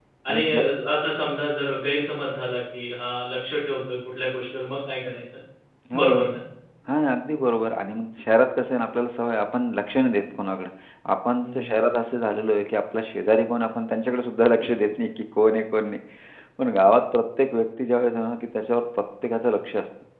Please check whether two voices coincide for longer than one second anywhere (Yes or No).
No